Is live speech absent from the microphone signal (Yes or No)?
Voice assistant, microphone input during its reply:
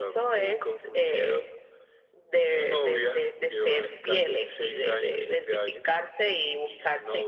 Yes